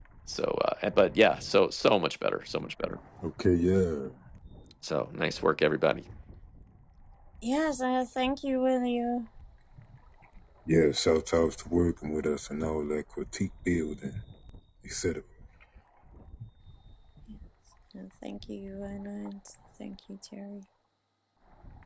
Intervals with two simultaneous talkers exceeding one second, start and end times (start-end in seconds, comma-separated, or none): none